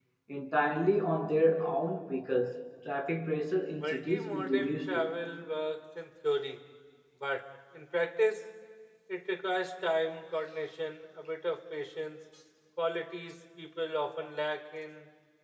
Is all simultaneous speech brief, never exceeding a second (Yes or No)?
No